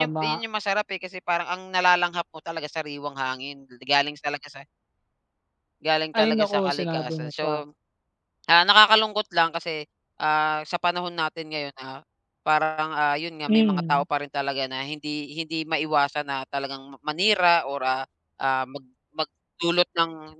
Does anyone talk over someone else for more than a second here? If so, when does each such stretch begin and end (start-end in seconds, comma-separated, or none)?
6.2-7.5